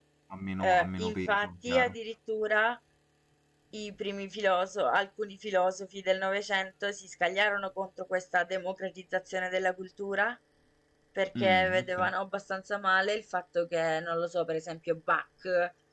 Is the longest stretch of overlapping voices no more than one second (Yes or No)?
No